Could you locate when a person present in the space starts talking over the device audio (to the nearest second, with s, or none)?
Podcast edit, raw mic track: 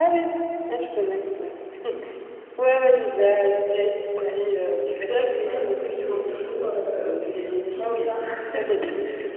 none